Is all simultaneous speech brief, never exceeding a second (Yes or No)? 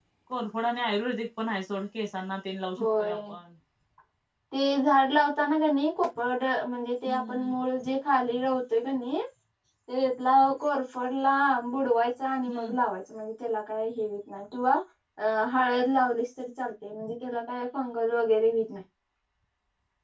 Yes